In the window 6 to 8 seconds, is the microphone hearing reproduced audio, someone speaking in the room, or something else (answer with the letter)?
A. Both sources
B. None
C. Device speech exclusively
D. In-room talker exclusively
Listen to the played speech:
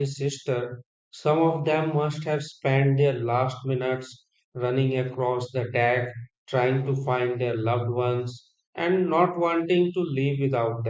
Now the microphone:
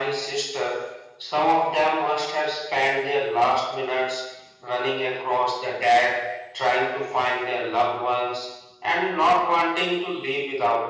C